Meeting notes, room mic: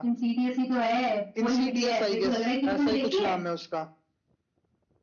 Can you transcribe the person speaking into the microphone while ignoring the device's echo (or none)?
none